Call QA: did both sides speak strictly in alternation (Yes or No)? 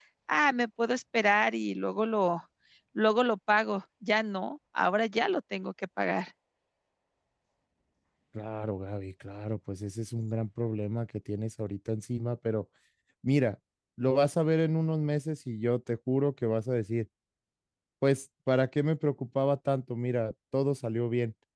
Yes